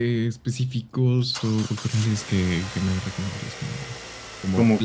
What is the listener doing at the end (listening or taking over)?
listening